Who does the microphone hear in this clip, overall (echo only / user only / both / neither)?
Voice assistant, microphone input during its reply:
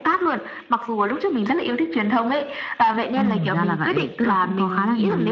echo only